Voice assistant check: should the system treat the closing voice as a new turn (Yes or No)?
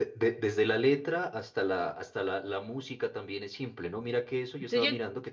No